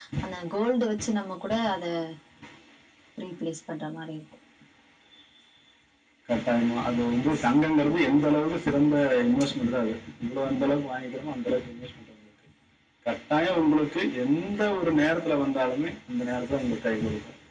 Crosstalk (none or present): none